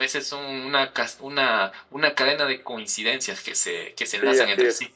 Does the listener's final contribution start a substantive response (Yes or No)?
Yes